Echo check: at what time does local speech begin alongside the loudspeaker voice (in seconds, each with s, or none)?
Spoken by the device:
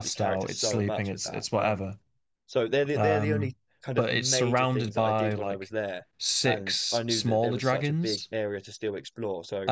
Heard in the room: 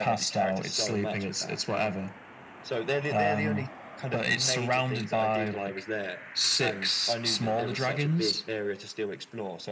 none